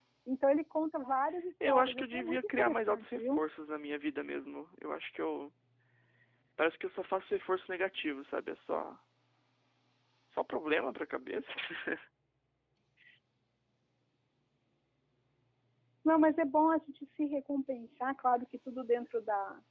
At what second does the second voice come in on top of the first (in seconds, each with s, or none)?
1.6 s